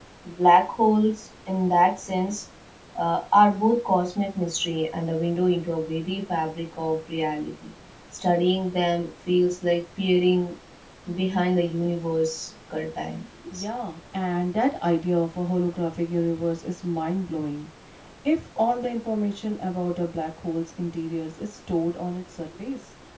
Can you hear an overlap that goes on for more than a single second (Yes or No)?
No